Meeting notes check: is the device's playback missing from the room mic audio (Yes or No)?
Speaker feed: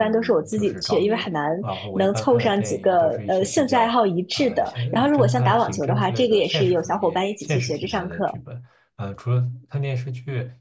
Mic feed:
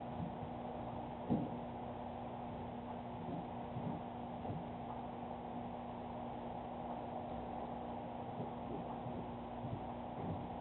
Yes